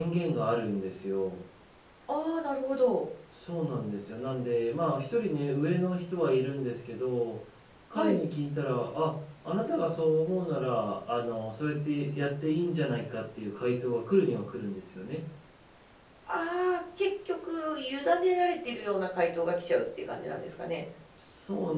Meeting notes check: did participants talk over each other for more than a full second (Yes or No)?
No